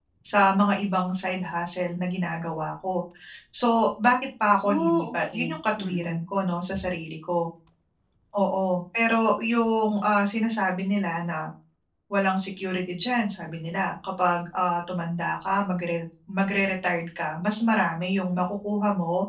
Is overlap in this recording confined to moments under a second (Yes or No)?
No